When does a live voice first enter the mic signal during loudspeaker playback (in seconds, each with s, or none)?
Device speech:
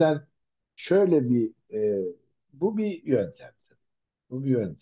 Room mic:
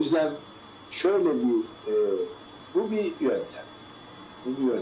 none